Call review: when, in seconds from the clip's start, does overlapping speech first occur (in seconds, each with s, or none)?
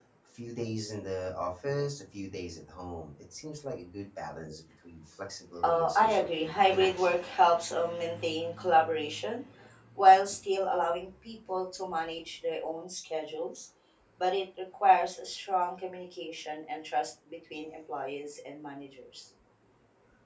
5.6 s